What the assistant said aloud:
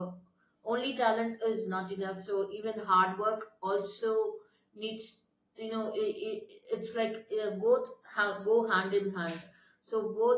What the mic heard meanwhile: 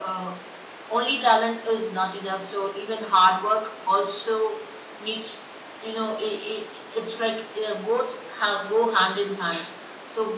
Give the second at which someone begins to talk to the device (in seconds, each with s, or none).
none